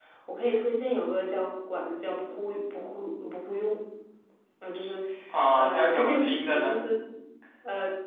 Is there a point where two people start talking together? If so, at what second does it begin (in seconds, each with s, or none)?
5.5 s